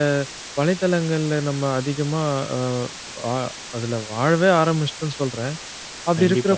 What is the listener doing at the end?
listening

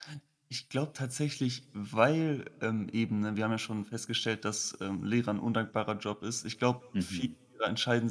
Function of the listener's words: listening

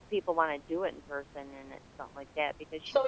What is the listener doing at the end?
taking over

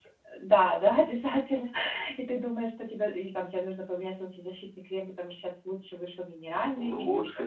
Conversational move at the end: taking over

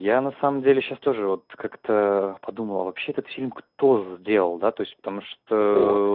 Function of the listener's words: listening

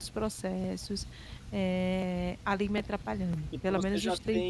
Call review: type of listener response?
taking over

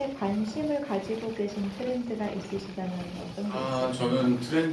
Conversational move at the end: taking over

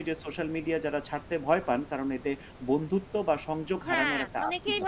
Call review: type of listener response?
taking over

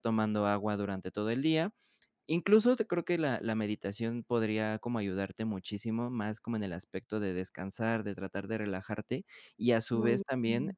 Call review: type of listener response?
listening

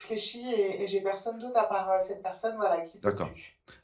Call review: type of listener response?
taking over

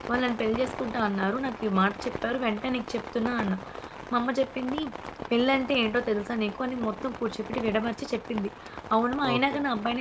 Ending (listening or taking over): listening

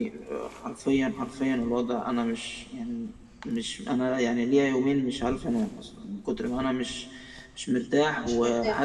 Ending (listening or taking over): listening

